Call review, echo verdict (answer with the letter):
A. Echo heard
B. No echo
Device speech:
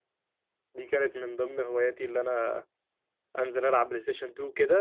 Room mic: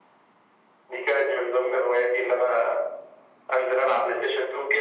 A